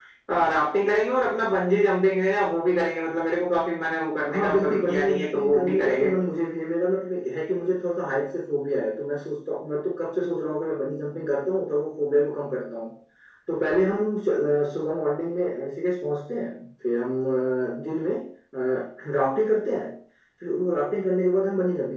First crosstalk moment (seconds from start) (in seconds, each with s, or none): 4.3 s